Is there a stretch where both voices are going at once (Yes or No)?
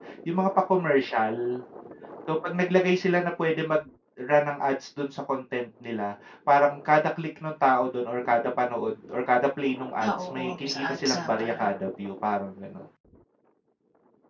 Yes